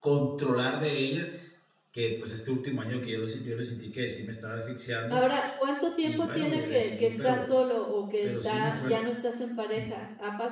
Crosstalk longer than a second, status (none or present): present